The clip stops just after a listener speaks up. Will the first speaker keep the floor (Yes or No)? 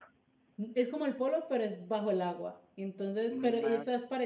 Yes